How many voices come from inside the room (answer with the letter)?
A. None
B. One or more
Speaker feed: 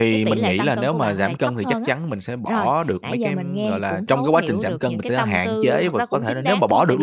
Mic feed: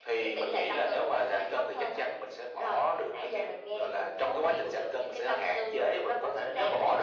A